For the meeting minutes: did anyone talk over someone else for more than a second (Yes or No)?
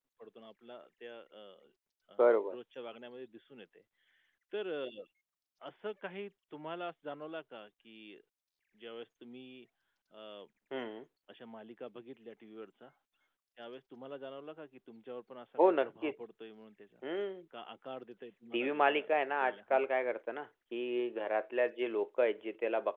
Yes